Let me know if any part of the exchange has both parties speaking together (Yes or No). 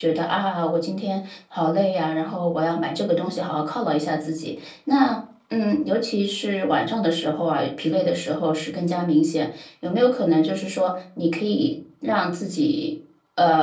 No